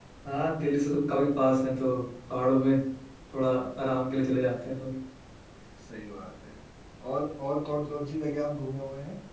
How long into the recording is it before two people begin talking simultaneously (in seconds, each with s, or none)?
none